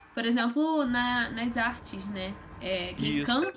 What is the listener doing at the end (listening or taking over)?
listening